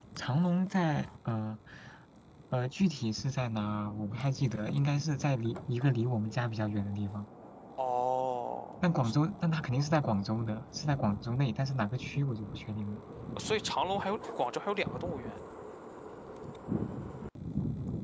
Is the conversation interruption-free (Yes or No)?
Yes